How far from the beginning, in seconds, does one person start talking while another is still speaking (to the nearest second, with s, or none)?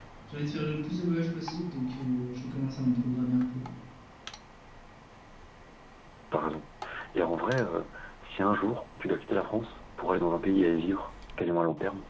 none